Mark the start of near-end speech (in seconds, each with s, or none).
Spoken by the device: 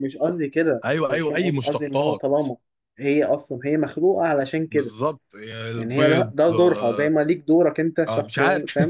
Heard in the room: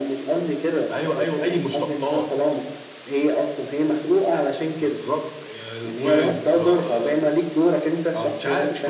none